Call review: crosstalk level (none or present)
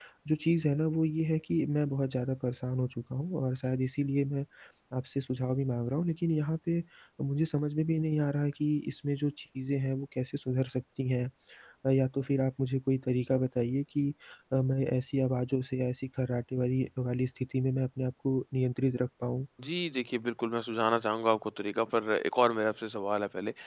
none